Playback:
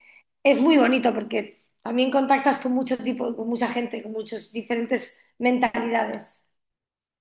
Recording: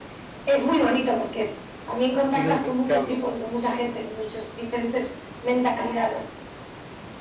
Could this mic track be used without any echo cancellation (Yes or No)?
No